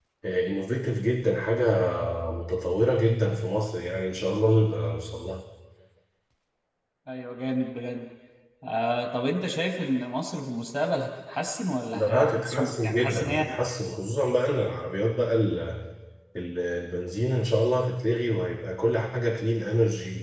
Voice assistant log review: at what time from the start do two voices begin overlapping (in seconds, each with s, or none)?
11.9 s